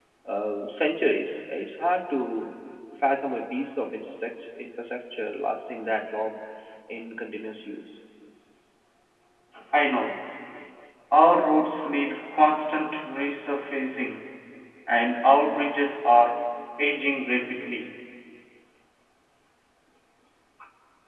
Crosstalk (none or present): none